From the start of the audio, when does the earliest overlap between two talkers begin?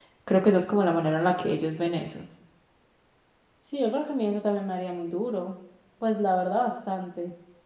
none

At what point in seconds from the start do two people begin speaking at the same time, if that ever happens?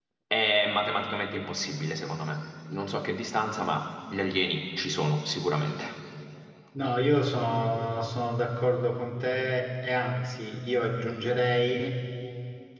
none

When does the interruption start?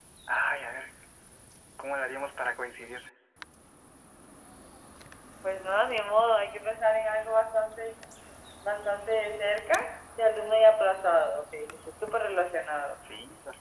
none

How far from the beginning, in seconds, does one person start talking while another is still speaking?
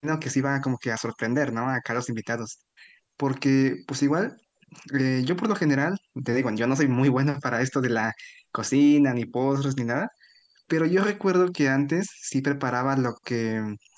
none

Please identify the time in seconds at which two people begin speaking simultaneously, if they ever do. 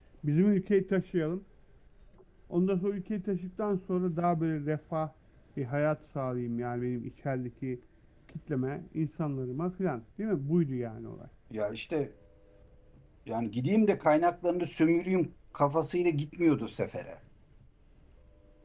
none

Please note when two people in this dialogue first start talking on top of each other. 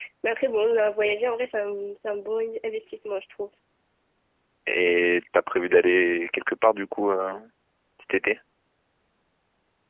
none

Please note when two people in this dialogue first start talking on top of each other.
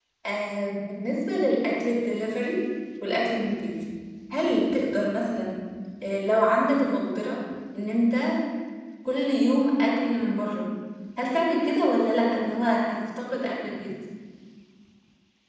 none

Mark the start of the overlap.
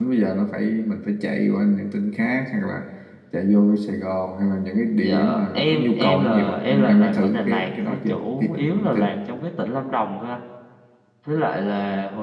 5.0 s

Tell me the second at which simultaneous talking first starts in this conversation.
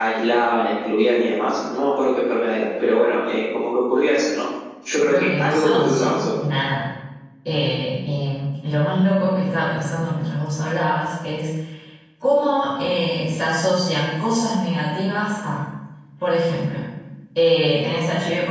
4.9 s

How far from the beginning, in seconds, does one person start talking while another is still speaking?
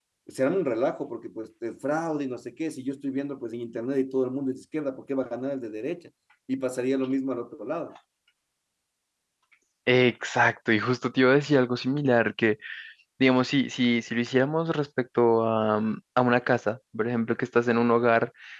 none

